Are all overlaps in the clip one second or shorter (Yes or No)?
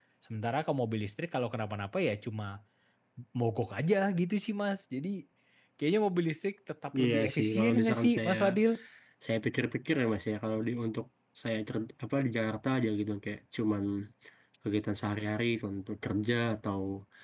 No